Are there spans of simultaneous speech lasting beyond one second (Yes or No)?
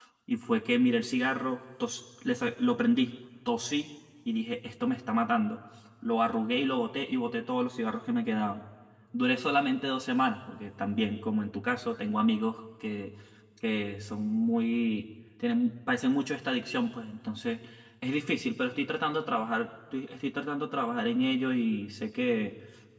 No